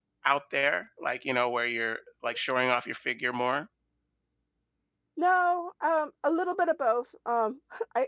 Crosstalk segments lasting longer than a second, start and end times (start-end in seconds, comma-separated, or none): none